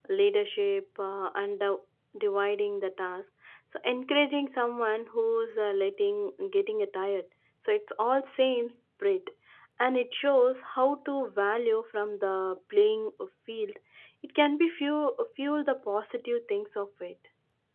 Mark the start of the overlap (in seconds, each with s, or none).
none